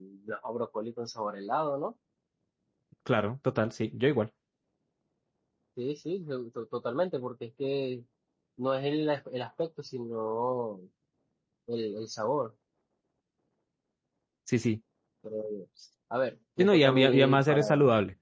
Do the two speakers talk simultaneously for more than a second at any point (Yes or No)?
Yes